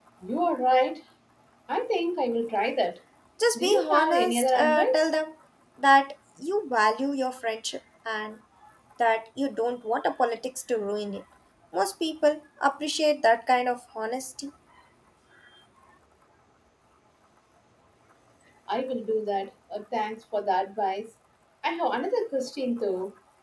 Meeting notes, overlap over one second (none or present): present